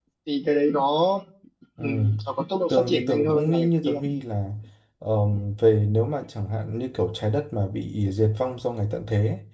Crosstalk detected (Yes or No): Yes